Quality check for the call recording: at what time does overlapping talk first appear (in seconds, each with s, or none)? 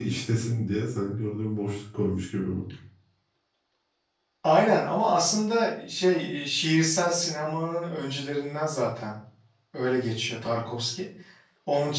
none